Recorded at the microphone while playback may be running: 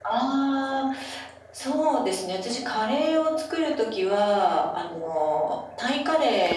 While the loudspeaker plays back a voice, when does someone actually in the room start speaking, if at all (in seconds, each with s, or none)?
none